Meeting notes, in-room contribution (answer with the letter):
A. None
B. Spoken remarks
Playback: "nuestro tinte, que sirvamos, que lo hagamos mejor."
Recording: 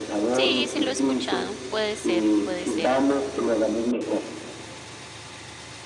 B